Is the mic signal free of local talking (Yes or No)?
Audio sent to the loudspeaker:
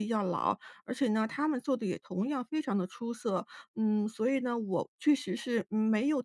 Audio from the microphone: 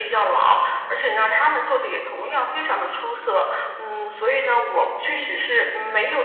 Yes